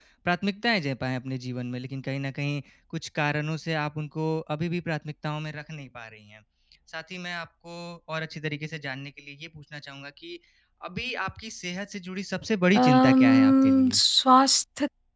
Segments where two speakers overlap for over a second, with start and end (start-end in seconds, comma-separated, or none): 12.7-14.0